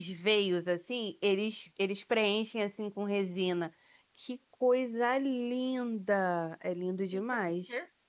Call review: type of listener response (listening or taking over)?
taking over